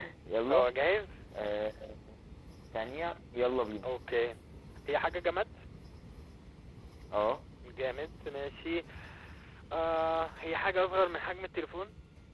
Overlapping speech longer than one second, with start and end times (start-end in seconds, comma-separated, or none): none